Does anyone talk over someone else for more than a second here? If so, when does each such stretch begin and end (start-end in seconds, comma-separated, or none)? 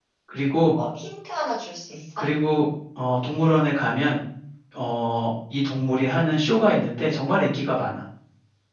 none